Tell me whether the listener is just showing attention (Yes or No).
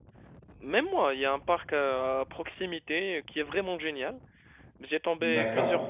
Yes